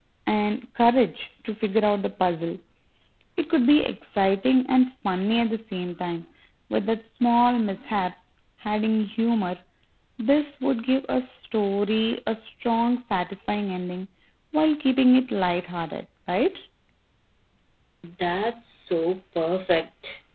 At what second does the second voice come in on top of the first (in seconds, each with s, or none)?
none